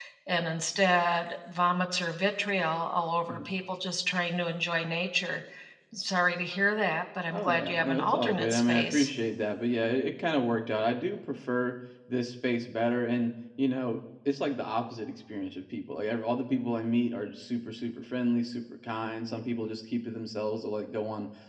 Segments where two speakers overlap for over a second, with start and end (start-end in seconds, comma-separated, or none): 7.3-9.1